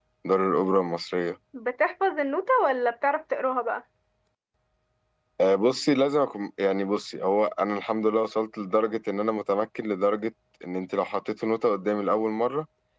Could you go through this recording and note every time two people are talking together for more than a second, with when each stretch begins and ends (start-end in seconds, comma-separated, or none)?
none